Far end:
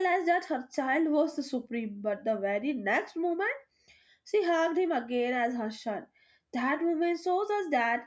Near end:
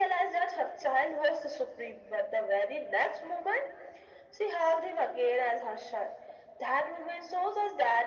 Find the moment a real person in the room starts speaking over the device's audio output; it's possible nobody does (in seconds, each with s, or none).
none